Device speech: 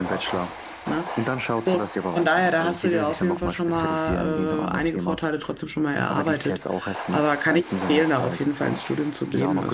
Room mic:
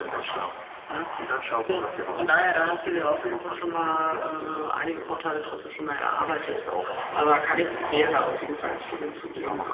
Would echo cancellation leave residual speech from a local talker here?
No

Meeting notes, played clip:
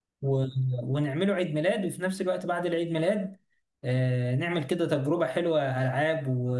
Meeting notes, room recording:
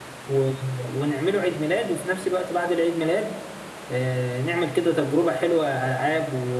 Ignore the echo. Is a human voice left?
No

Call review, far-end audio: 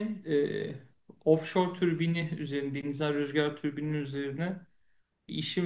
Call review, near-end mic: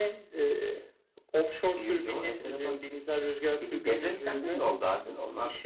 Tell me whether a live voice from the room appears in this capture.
Yes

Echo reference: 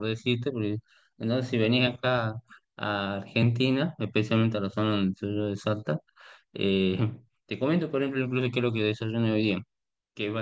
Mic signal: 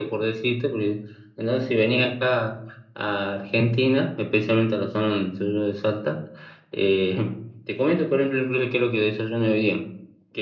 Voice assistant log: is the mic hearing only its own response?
Yes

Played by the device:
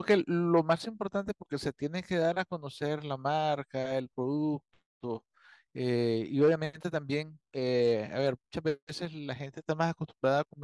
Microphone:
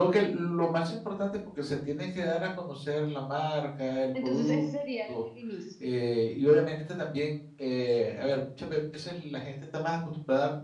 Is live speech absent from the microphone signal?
No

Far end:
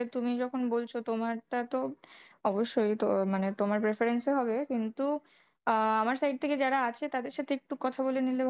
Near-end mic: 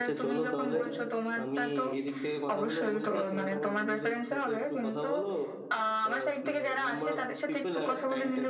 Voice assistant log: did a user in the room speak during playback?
Yes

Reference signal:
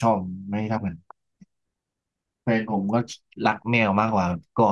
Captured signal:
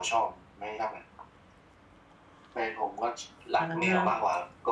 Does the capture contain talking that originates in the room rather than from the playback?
Yes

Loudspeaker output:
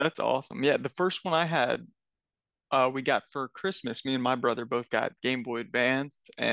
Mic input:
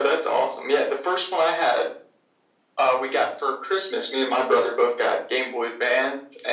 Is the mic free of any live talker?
Yes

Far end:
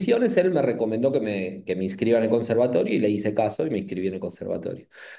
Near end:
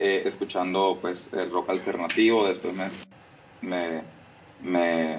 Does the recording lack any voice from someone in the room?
No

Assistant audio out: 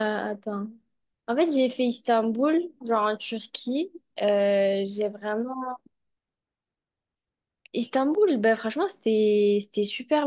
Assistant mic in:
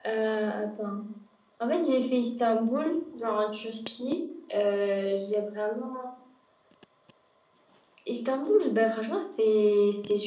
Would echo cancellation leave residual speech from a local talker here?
No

